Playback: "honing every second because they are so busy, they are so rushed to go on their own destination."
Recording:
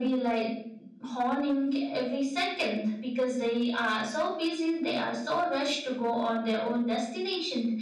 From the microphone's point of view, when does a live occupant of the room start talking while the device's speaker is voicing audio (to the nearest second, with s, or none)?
none